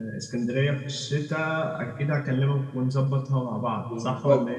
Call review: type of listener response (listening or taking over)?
taking over